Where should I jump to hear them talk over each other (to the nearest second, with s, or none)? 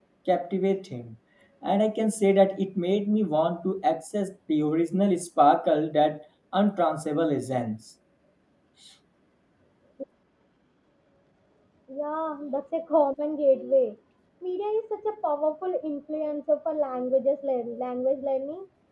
none